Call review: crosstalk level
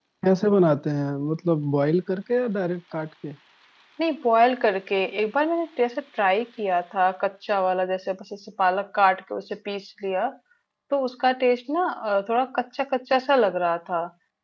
none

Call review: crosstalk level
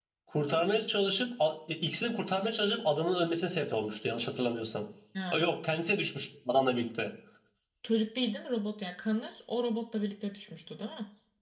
none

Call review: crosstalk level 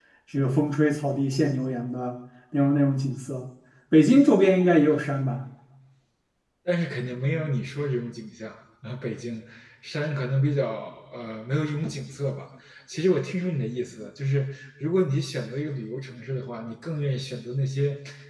none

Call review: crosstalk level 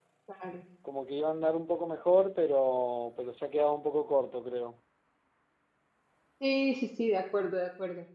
none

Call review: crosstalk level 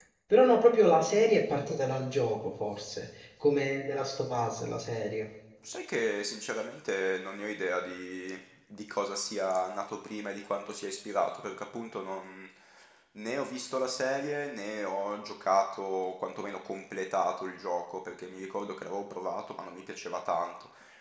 none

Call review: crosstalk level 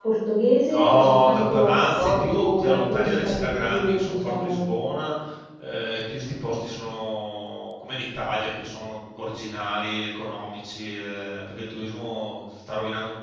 present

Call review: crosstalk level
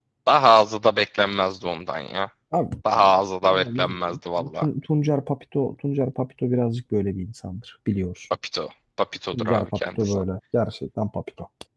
present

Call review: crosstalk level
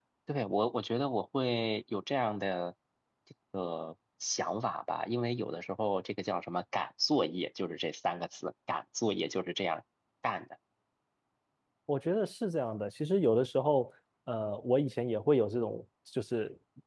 none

